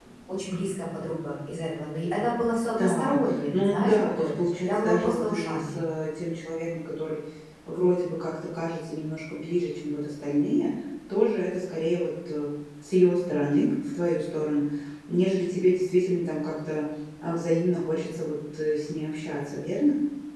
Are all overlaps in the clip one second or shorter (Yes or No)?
No